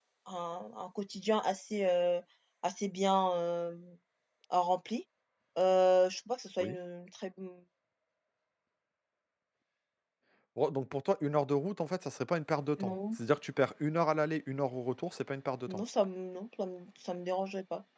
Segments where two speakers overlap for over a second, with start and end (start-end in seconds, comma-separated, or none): none